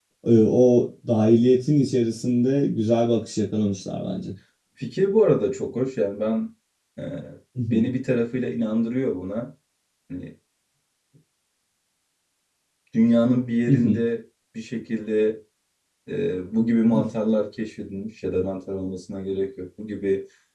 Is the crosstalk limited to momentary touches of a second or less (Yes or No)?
Yes